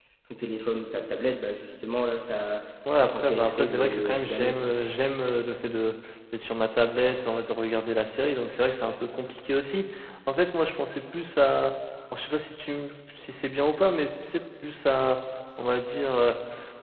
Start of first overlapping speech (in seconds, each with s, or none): 2.9 s